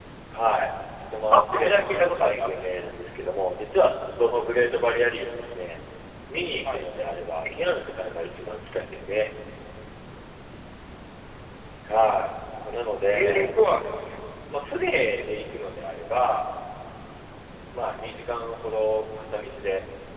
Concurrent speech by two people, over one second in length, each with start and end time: 1.3-2.6

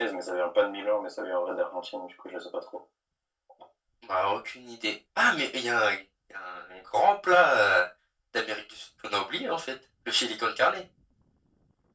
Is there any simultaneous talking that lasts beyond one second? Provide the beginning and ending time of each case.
none

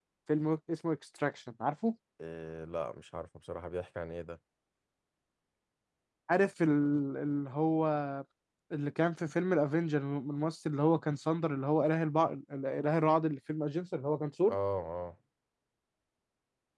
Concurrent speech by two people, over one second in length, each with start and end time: none

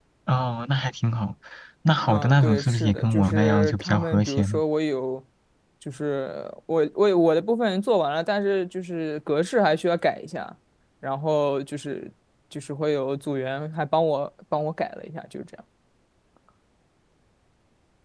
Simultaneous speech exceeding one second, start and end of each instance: 2.1-4.6

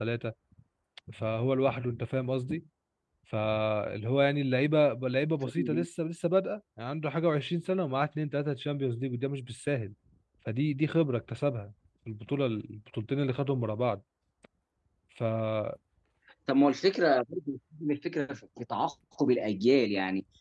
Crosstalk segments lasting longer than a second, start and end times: none

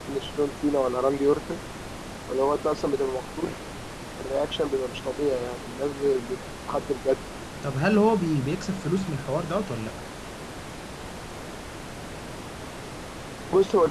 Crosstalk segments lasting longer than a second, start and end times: none

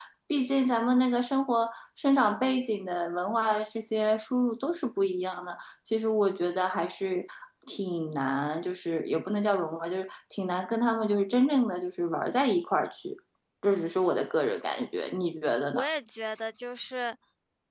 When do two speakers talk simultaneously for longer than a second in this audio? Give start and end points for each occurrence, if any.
none

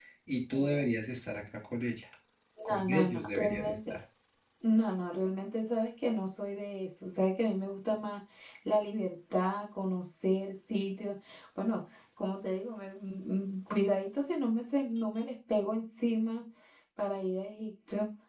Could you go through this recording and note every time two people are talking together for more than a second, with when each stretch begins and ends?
2.7-4.0

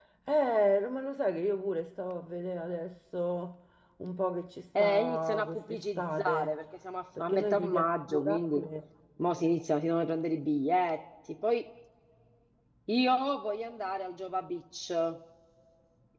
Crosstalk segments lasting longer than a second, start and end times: 4.8-6.6, 7.2-8.6

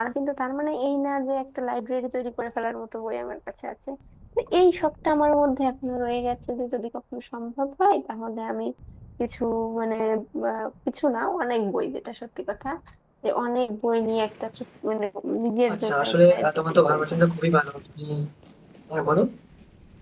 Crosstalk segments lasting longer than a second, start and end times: 15.7-17.1

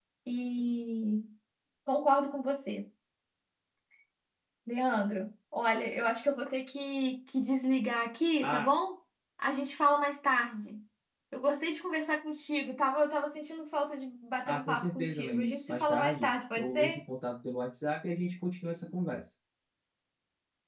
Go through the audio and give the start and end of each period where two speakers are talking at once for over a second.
14.5-17.0

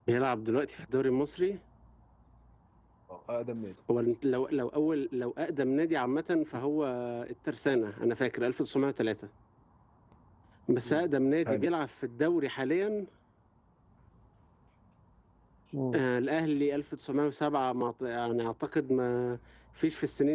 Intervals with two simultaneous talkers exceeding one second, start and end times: none

